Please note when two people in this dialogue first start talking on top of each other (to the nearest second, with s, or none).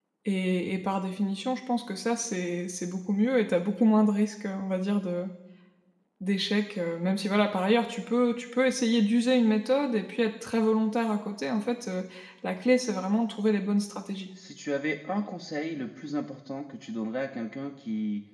none